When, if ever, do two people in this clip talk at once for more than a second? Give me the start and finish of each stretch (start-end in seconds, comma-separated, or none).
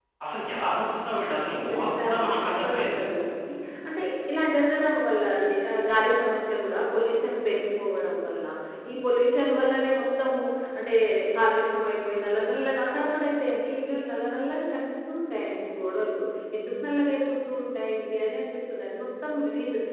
1.7-3.0